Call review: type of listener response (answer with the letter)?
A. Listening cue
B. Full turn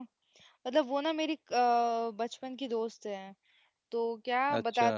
A